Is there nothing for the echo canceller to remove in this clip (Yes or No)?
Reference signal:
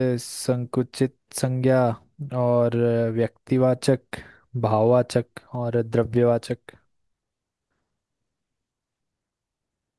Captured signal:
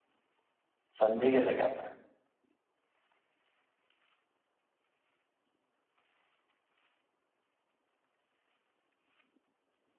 Yes